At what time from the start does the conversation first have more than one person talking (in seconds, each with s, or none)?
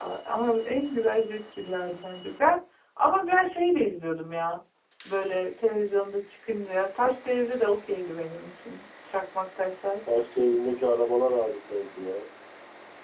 none